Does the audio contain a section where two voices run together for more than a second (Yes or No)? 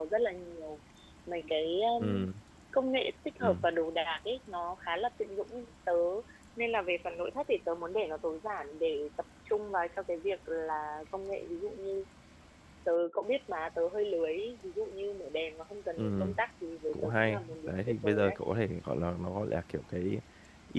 Yes